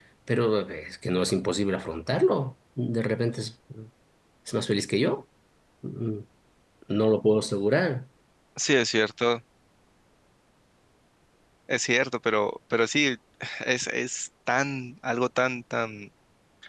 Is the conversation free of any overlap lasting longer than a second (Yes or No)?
Yes